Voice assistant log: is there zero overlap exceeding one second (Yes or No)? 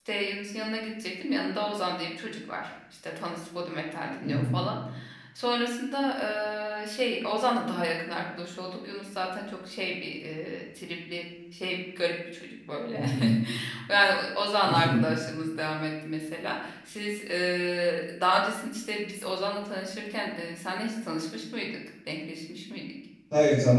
Yes